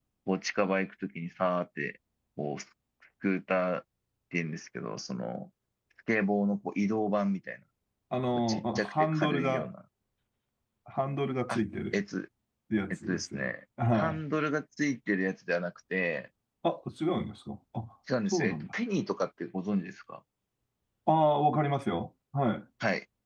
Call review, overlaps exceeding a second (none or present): present